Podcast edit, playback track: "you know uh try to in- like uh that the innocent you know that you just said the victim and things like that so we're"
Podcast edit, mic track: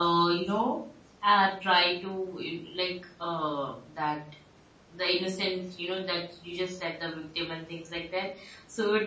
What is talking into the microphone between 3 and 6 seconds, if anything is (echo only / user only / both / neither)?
echo only